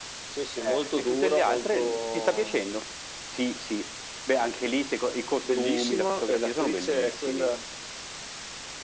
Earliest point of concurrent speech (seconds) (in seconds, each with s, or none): 0.6 s